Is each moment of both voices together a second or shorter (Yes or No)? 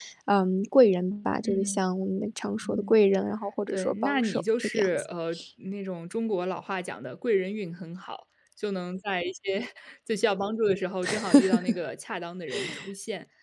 No